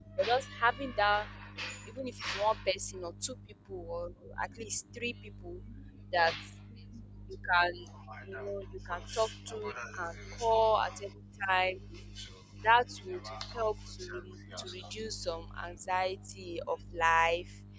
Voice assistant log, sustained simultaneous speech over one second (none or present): present